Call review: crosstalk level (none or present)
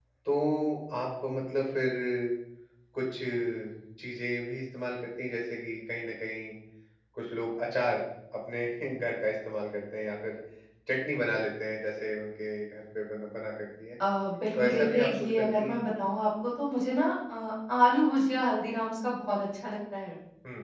present